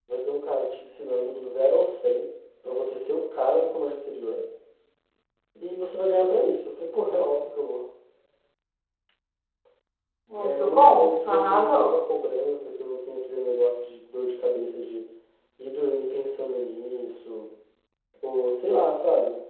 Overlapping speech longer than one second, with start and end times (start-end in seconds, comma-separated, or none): 10.4-11.9